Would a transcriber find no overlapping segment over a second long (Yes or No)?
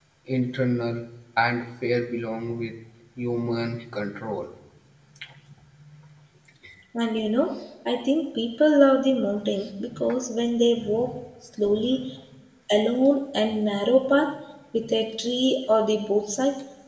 Yes